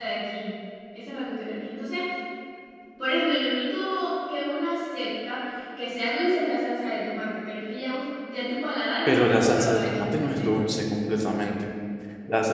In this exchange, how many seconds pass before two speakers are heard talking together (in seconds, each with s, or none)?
9.1 s